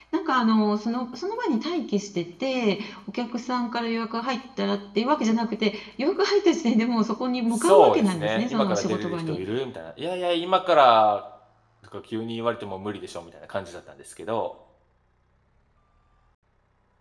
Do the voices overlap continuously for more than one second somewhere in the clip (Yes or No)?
Yes